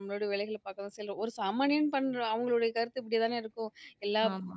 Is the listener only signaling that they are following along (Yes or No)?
Yes